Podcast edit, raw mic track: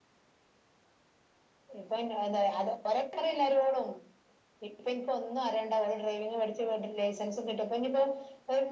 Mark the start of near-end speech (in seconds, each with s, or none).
none